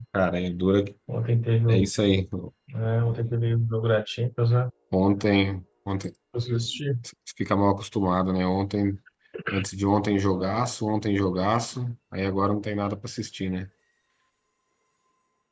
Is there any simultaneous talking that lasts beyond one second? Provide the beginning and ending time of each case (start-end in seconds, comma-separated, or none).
none